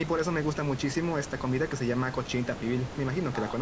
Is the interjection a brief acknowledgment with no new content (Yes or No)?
No